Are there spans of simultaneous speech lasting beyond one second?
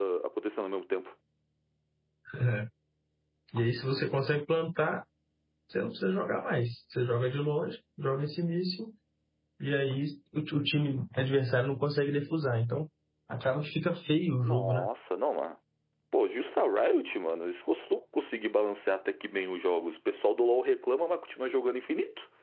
No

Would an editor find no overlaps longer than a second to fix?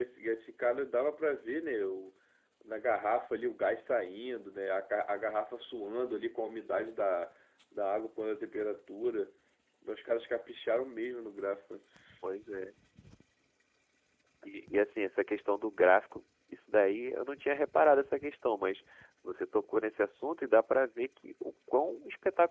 Yes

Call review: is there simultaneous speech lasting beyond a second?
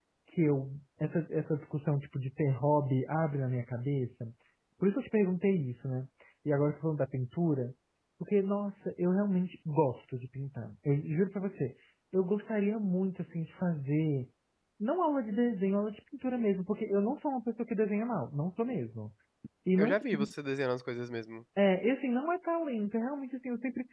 No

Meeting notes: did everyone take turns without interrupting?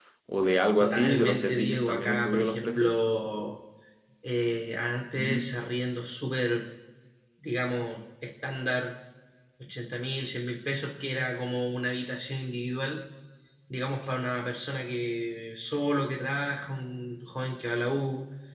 No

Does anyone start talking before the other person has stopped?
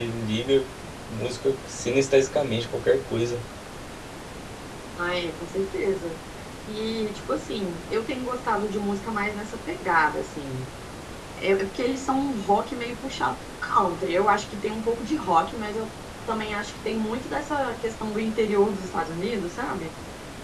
No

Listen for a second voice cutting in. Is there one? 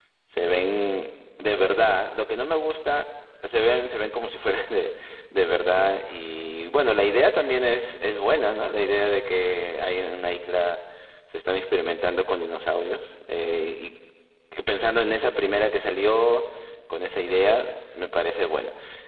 No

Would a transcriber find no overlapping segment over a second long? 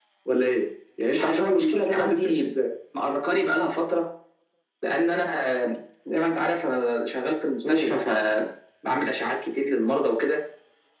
No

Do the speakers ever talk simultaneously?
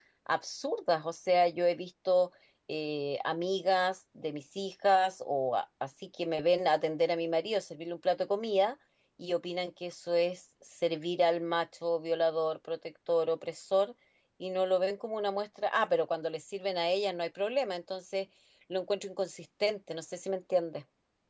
No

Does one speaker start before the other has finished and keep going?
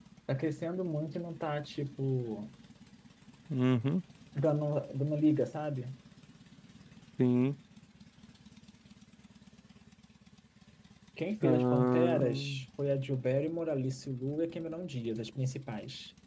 Yes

